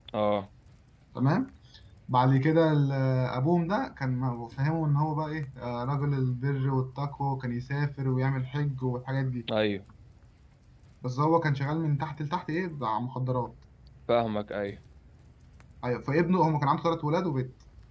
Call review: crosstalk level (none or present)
none